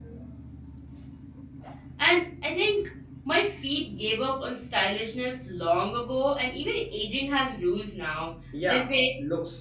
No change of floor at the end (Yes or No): No